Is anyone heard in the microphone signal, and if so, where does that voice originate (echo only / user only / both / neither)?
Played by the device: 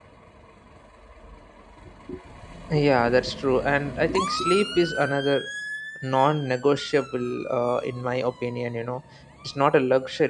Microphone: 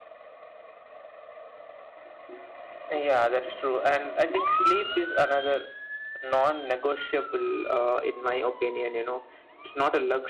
echo only